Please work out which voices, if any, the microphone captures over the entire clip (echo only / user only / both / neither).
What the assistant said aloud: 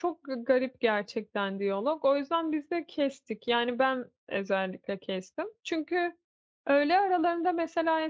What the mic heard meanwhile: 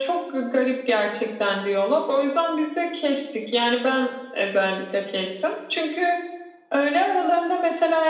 echo only